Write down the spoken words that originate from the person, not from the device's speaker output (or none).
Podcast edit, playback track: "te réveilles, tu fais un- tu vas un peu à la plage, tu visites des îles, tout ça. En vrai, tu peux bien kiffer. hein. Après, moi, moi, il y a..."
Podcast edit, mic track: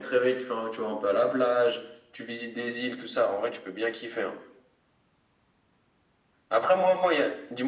none